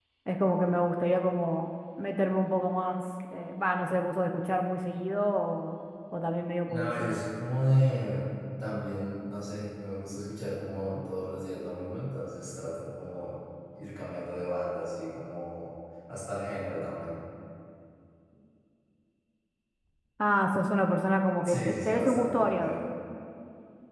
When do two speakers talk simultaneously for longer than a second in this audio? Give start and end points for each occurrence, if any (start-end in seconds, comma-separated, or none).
21.4-22.8